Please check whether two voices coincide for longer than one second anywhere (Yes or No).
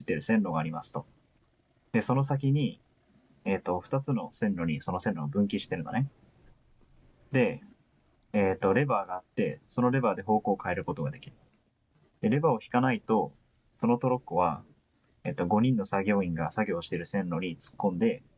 No